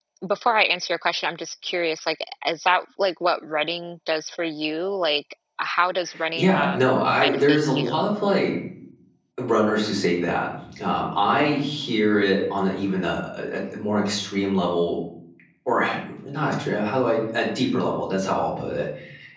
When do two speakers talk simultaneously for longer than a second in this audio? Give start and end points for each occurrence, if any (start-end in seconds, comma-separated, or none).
6.4-8.0